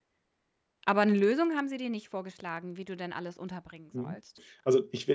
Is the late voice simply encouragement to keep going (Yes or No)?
No